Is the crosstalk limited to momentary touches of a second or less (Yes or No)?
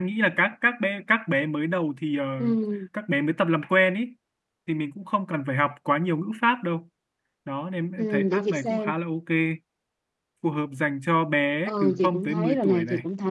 No